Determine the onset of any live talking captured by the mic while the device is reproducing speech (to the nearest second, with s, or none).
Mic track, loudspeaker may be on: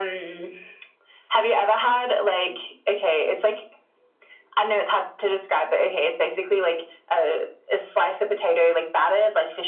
none